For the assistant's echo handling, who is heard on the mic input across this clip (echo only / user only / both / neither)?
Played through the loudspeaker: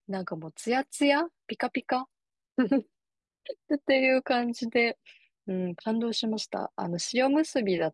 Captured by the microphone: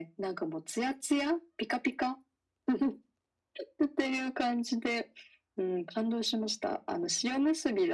echo only